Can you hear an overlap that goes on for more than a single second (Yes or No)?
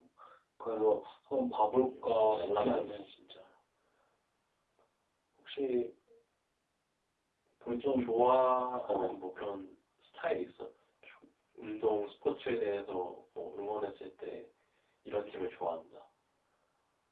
Yes